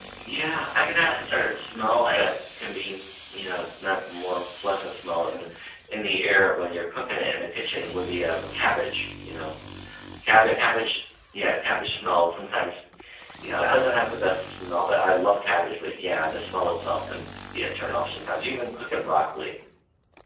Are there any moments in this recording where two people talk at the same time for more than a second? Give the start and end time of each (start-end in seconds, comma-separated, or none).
1.1-2.3